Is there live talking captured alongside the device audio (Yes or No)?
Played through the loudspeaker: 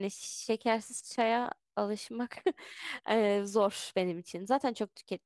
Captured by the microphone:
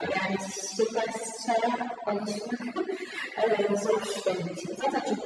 No